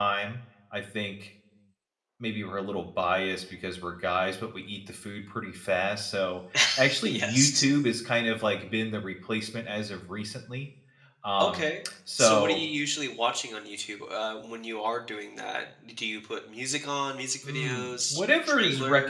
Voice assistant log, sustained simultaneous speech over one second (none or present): present